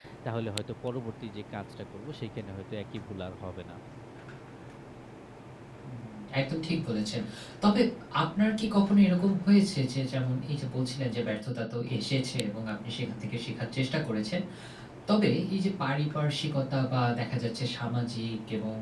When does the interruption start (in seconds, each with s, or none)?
none